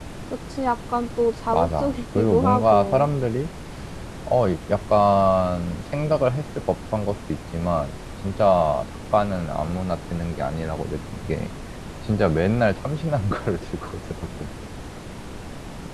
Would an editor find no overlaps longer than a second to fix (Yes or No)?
No